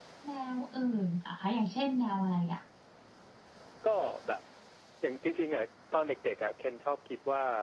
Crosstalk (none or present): none